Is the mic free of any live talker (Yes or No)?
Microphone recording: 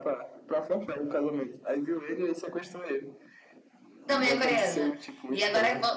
No